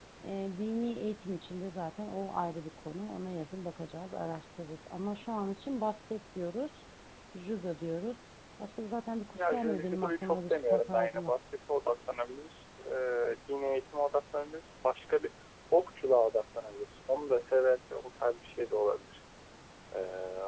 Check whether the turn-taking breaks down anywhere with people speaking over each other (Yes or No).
Yes